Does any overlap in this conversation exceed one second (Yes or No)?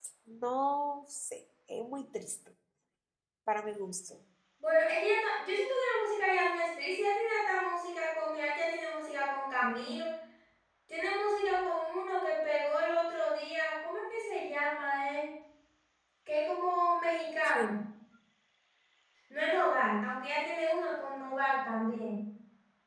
No